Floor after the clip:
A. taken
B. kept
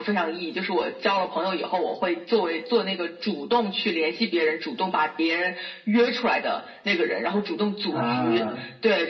B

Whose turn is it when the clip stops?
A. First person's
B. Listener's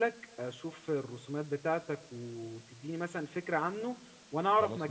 A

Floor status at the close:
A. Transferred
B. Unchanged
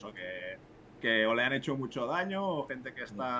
B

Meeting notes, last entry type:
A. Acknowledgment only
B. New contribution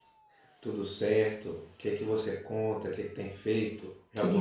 B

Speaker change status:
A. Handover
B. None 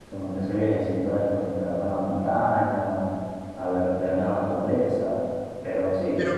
A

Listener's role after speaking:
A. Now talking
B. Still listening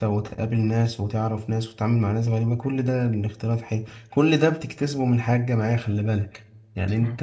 B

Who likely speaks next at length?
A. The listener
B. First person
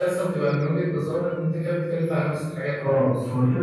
A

